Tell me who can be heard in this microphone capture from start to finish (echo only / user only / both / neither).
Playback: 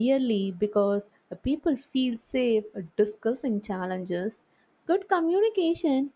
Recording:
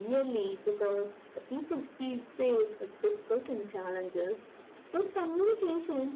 echo only